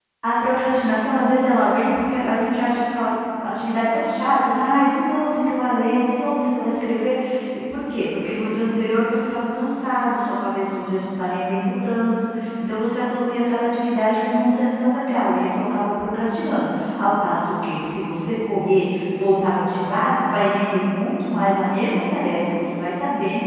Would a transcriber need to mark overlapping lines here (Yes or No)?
No